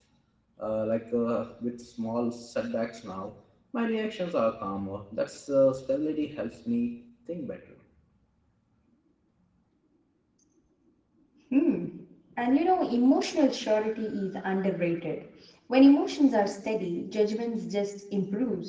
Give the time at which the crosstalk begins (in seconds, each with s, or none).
none